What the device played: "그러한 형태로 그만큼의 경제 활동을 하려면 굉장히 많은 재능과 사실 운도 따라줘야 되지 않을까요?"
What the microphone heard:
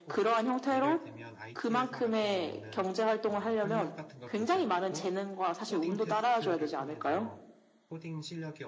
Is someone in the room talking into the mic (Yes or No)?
Yes